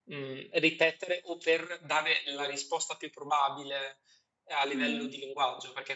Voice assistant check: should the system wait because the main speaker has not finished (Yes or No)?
Yes